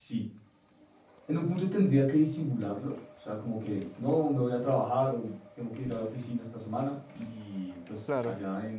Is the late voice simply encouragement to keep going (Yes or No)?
Yes